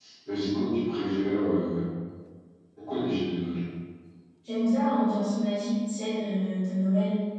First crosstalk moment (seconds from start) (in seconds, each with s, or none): none